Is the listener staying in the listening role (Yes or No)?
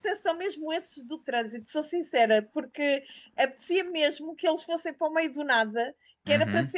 Yes